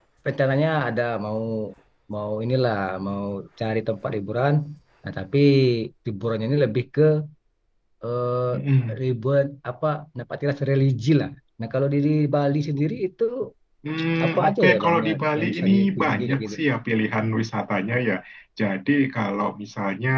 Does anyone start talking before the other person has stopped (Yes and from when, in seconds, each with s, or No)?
Yes, from 14.2 s